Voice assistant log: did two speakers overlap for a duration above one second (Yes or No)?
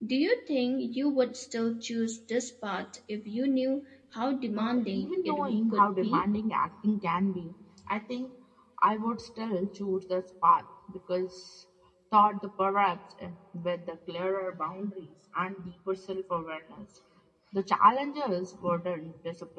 Yes